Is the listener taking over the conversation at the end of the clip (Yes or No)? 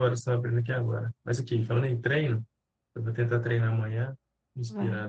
No